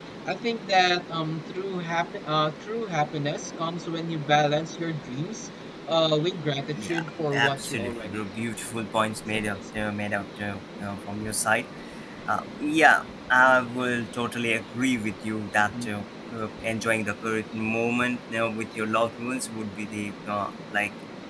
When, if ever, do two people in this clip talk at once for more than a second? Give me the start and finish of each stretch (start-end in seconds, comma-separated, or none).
6.7-8.2